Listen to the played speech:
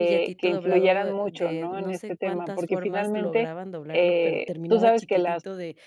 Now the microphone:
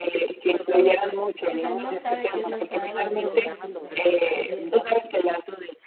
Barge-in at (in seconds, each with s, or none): 0.6 s